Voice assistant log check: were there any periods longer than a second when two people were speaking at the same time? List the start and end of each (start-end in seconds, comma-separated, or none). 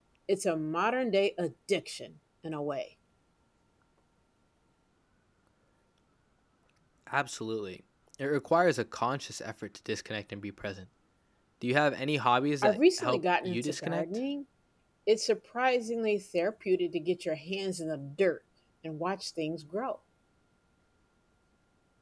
12.6-14.0